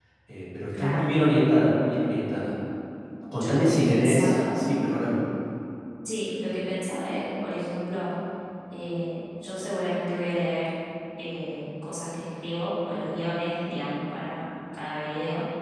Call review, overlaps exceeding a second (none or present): present